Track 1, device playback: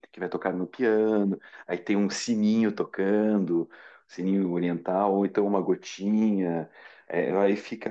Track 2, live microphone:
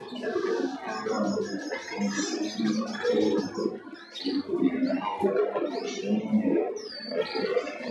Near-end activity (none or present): none